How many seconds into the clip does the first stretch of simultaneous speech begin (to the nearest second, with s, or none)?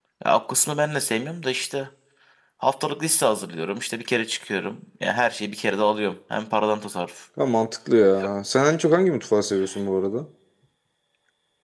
none